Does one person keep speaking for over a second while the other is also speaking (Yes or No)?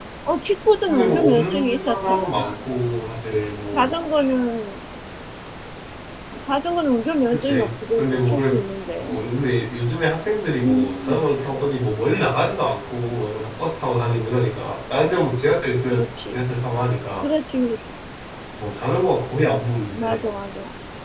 Yes